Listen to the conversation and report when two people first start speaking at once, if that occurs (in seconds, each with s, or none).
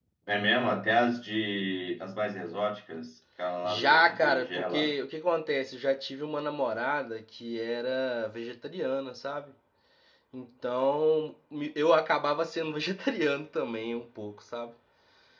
3.6 s